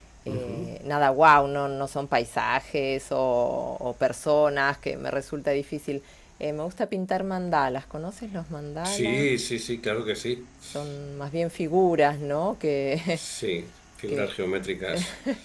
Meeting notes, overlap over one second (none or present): none